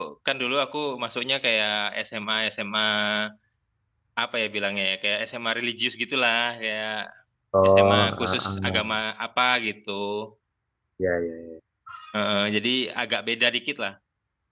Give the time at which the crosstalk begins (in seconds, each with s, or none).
7.7 s